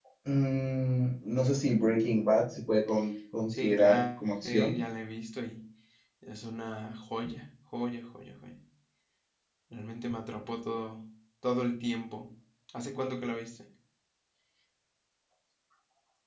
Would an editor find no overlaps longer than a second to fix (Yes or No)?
No